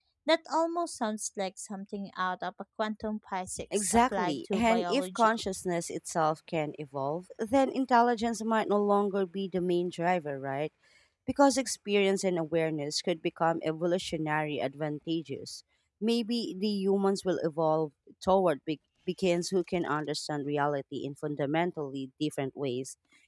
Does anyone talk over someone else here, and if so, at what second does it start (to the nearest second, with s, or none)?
4 s